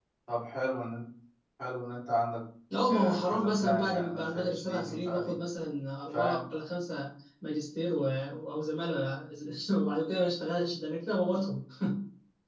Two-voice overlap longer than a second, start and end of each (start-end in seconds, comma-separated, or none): 2.9-5.4